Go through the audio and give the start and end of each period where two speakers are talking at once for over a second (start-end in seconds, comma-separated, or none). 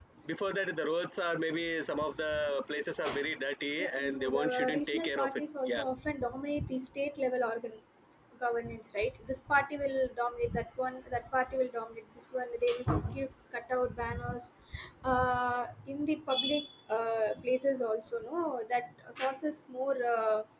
3.8-5.8